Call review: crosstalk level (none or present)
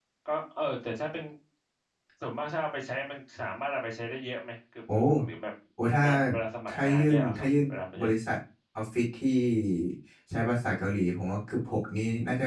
present